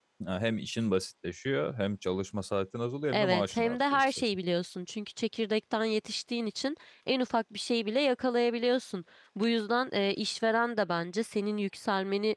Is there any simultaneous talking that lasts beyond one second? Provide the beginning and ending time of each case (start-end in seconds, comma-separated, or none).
3.1-4.4